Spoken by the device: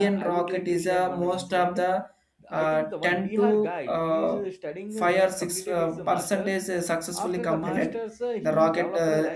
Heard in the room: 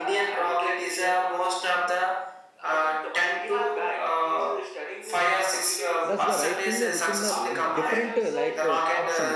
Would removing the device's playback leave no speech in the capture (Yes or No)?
No